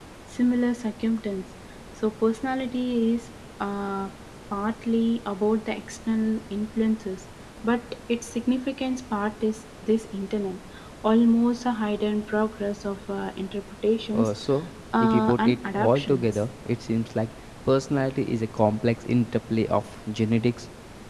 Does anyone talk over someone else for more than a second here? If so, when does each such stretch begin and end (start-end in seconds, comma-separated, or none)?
14.9-16.2